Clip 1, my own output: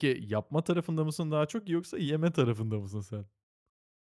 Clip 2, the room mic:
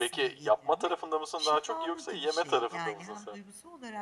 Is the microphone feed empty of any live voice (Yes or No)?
No